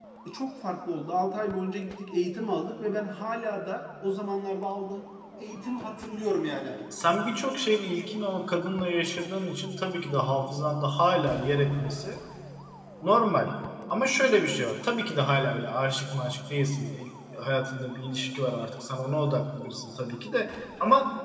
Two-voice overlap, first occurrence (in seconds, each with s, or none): none